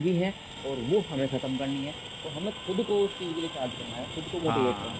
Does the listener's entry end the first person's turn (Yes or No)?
No